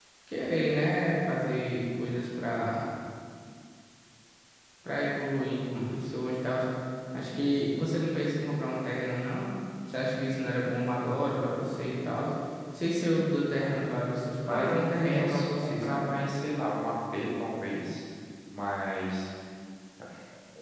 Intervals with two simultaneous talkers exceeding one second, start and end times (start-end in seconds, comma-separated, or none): 14.5-16.1